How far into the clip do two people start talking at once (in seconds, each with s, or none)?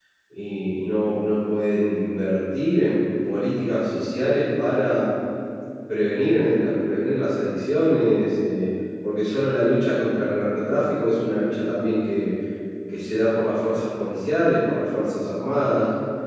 none